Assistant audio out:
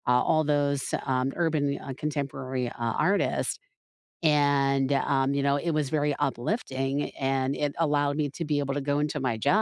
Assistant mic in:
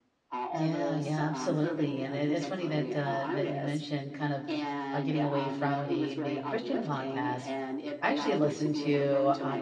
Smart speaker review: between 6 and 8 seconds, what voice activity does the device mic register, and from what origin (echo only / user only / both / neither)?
both